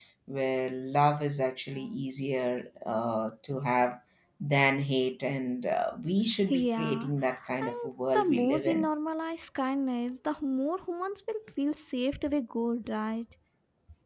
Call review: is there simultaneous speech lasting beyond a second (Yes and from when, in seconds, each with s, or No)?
Yes, from 6.5 s